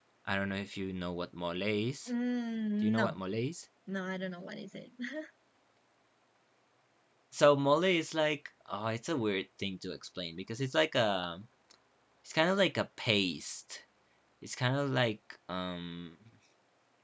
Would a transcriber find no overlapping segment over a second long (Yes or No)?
Yes